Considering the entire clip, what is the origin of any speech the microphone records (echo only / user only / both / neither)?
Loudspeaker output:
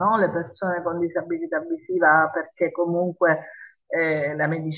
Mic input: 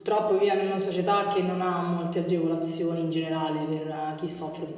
user only